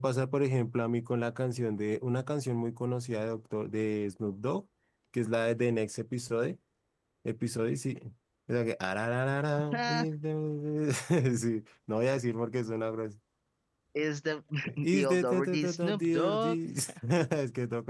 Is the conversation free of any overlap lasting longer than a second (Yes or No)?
No